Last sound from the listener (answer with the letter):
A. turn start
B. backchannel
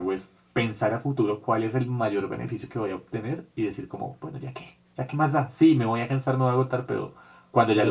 B